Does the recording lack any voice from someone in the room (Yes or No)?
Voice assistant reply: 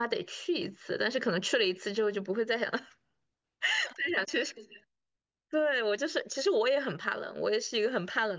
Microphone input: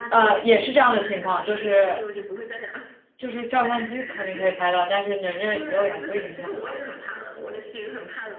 No